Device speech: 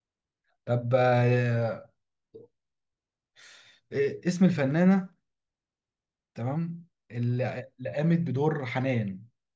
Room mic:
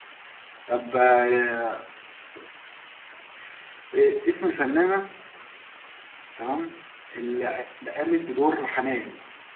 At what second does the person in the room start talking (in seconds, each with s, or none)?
none